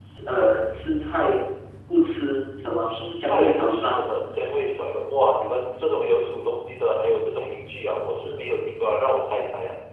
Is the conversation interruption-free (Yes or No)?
No